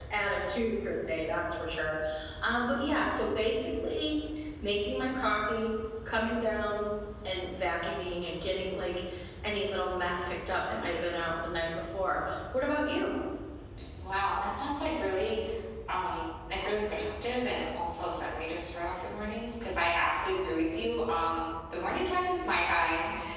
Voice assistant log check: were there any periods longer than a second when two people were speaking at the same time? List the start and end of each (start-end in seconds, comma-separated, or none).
none